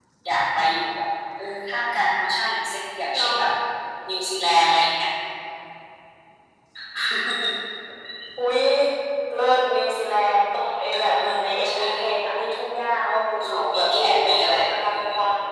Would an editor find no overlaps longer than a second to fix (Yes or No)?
No